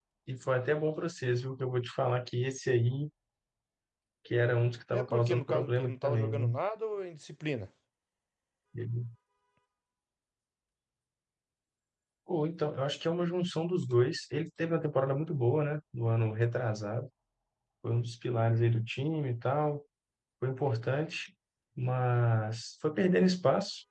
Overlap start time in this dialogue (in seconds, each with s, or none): 5.0 s